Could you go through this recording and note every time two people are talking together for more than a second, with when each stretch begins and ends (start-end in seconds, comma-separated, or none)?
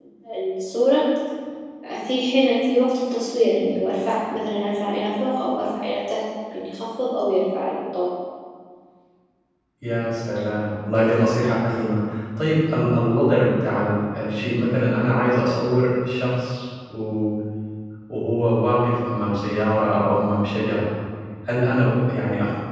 none